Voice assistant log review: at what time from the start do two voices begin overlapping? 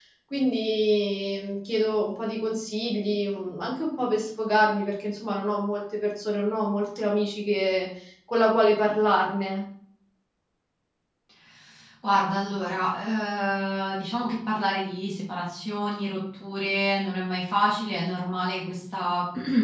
none

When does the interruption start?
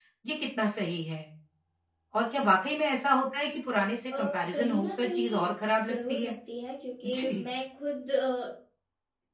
4 s

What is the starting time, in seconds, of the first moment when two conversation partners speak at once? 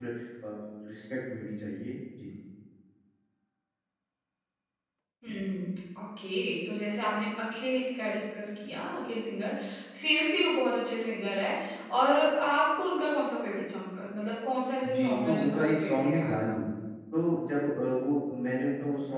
15 s

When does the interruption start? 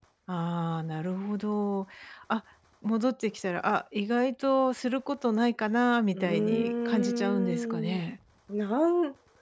6 s

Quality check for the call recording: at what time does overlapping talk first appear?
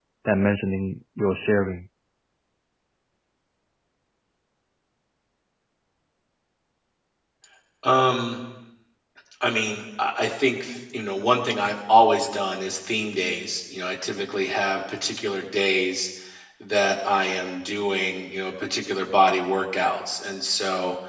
none

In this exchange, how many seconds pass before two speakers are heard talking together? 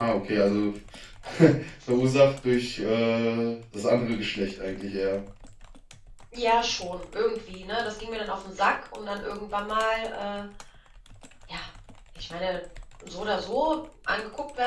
none

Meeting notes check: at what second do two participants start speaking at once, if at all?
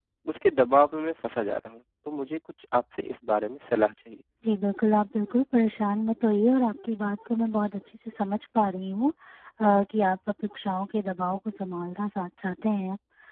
none

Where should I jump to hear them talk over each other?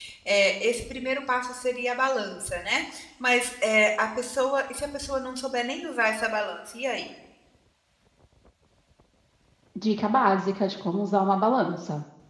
none

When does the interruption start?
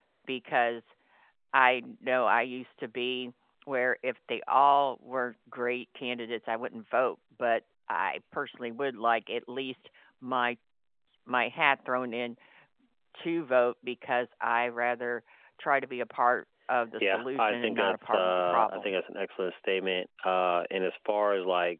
17 s

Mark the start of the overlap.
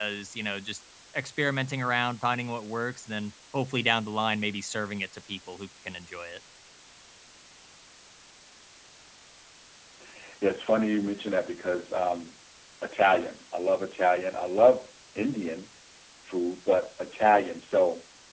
none

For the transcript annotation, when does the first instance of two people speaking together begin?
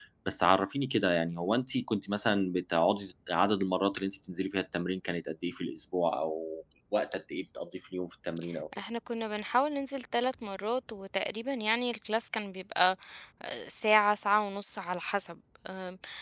none

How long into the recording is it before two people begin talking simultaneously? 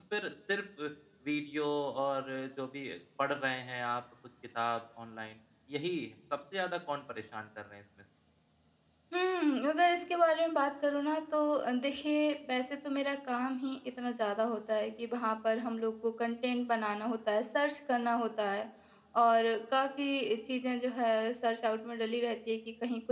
none

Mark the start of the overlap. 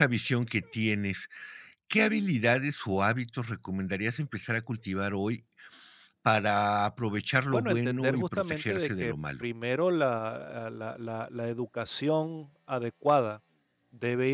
8 s

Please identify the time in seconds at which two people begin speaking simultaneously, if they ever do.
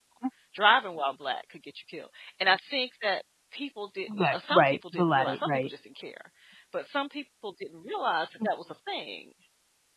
4 s

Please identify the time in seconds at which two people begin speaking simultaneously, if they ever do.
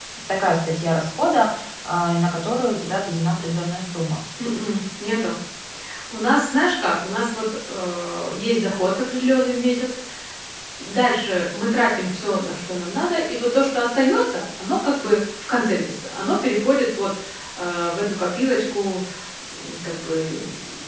none

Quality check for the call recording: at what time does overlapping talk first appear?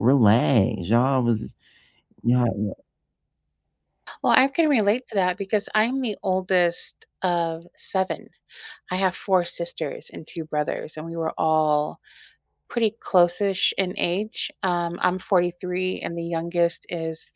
none

